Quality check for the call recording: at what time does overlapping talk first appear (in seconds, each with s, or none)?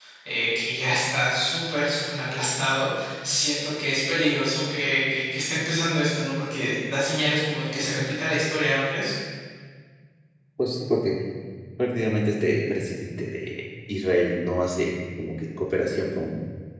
none